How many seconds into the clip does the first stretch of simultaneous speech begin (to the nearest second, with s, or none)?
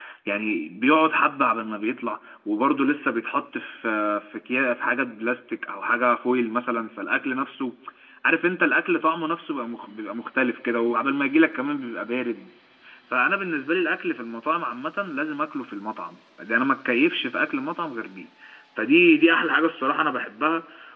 none